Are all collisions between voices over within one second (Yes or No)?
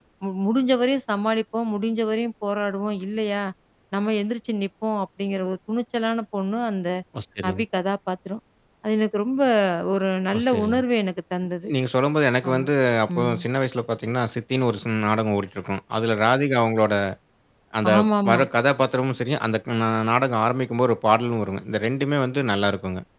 Yes